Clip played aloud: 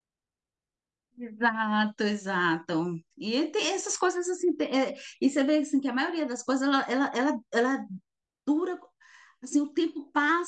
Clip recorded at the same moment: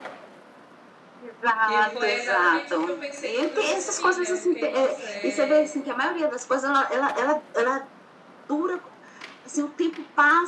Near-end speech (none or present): present